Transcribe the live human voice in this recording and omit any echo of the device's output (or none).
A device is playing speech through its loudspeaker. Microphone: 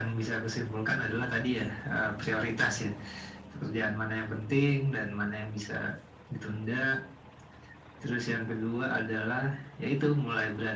none